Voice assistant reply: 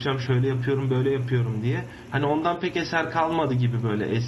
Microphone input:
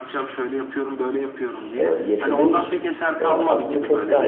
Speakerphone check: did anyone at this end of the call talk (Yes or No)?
Yes